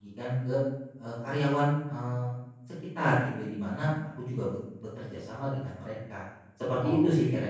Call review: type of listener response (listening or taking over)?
taking over